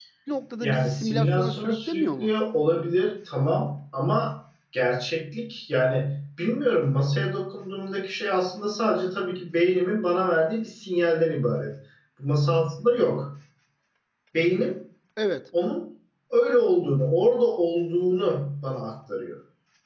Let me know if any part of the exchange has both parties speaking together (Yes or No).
Yes